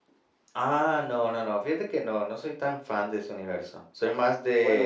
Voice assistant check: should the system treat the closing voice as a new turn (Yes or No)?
No